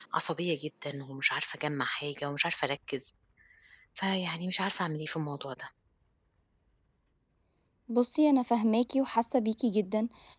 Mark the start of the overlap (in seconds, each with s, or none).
none